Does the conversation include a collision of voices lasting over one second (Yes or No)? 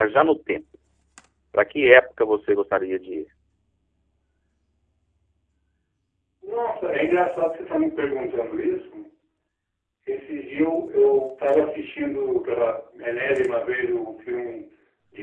No